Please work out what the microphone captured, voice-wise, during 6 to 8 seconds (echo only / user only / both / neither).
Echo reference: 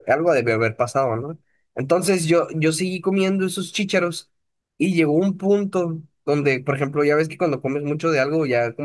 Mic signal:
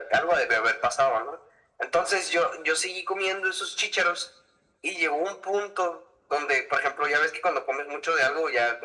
echo only